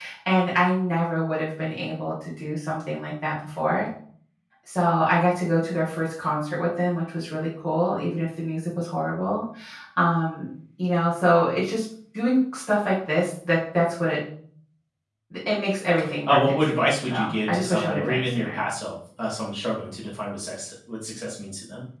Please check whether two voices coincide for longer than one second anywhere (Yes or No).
Yes